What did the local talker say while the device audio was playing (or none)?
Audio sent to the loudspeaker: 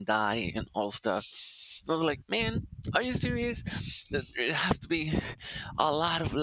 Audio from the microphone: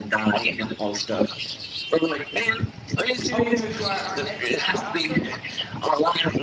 Oh, we're gonna do our our extra, our outro.